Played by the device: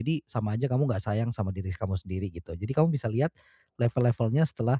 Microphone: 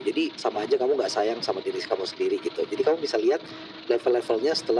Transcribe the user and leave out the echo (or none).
none